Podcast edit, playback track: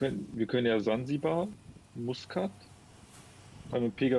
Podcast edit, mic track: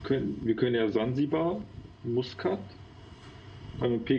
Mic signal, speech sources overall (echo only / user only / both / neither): echo only